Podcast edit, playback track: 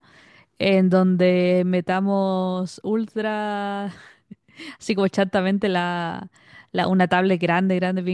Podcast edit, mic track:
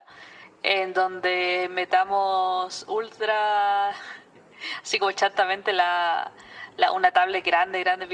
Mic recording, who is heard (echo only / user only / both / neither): echo only